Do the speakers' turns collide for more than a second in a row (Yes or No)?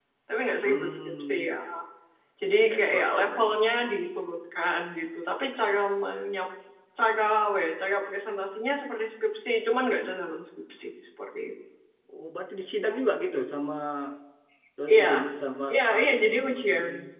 Yes